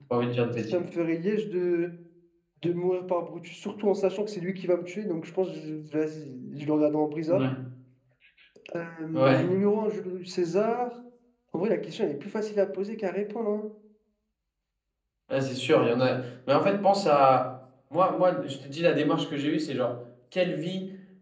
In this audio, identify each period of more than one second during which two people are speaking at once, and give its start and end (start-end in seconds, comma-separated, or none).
none